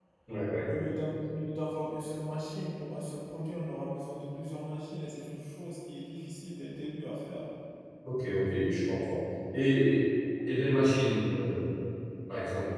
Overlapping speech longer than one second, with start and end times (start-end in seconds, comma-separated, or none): none